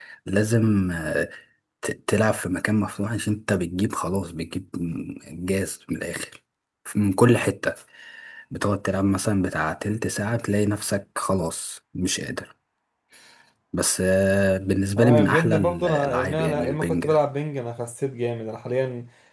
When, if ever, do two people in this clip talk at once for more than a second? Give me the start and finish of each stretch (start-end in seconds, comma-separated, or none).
15.0-17.0